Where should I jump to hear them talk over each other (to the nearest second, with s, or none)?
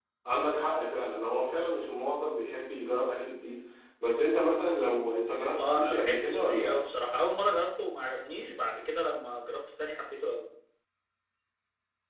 6 s